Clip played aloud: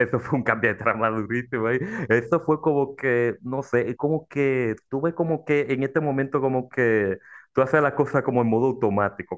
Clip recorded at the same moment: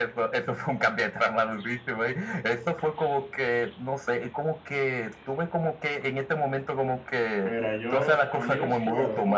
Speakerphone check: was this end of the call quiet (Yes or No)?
No